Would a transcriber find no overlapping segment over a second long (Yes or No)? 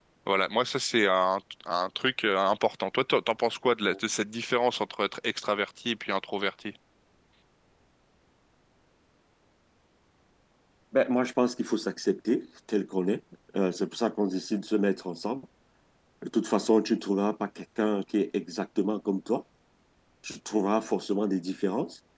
Yes